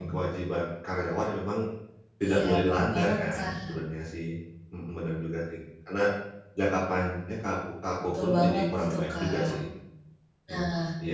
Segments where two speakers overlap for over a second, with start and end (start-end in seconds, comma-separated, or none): 2.2-3.7, 8.2-9.6